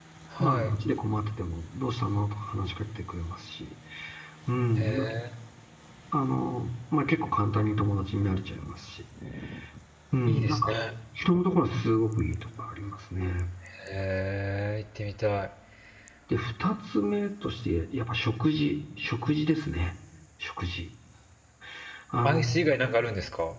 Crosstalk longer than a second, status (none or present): none